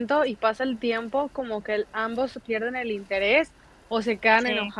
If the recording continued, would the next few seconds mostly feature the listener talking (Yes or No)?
No